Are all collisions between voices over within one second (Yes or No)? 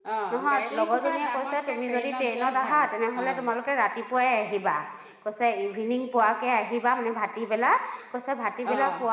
No